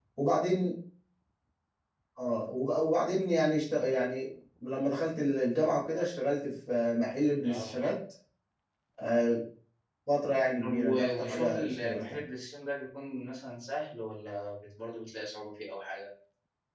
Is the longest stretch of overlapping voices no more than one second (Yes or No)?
No